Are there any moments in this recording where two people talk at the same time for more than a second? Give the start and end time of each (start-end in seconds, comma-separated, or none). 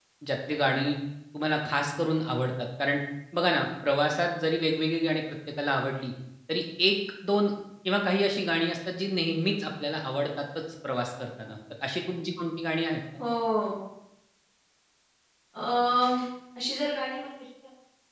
none